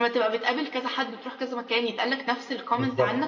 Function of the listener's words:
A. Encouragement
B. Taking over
B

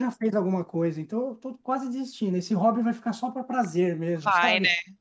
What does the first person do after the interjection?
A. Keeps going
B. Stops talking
B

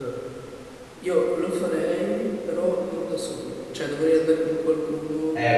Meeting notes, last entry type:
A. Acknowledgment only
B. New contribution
B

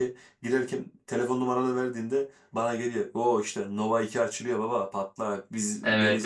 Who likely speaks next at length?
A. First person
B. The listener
B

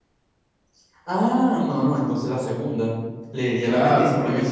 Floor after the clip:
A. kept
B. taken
B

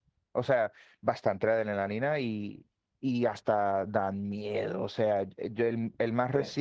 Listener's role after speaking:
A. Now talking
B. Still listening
B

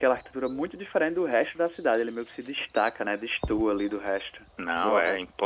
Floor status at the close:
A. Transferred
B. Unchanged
A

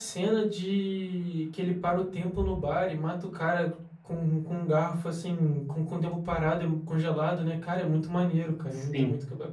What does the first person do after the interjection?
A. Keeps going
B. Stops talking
B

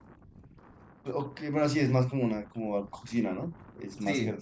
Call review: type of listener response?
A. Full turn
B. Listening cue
A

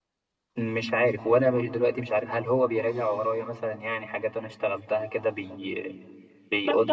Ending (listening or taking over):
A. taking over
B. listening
A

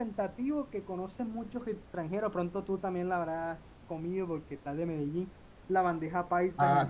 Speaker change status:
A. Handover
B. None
A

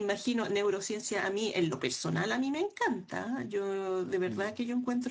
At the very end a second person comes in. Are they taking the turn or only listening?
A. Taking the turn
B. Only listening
B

